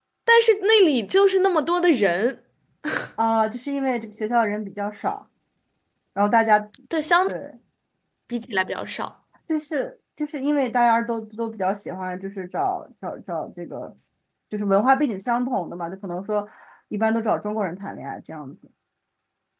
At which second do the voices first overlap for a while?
none

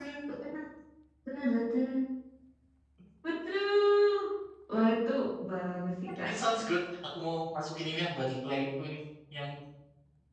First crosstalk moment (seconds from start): none

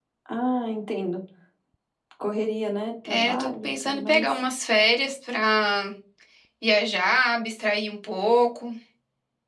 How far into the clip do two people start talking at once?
3.0 s

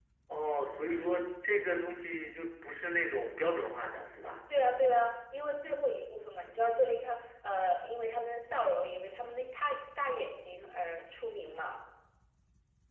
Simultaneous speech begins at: none

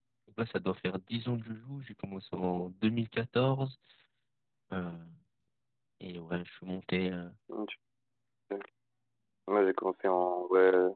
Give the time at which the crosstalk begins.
none

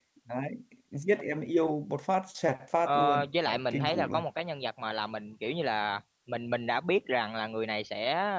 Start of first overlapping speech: 2.8 s

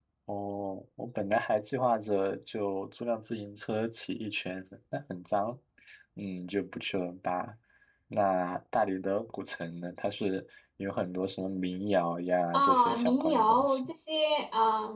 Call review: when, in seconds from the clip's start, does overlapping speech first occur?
12.5 s

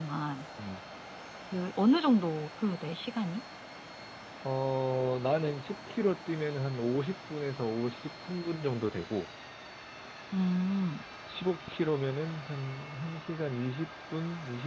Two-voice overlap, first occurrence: none

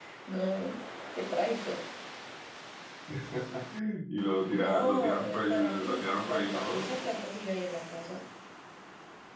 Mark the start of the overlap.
4.5 s

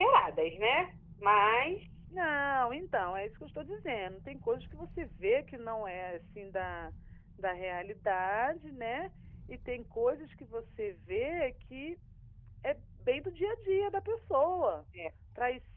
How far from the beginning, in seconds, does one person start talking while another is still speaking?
none

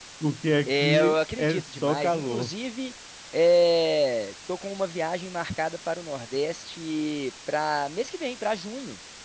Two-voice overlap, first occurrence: 0.7 s

